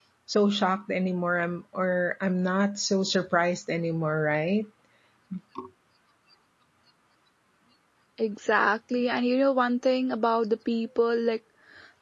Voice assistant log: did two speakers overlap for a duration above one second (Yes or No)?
No